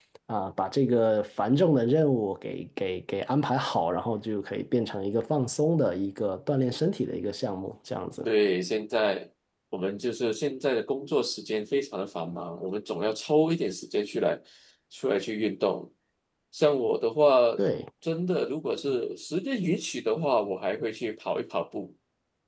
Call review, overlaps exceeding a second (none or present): none